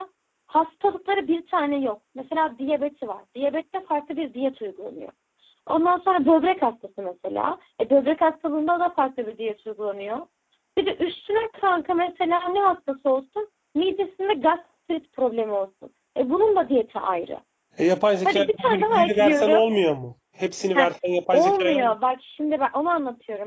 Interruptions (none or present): present